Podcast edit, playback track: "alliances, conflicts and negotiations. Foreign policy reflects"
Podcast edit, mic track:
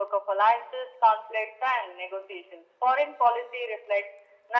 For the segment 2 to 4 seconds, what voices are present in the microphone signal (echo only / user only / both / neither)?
echo only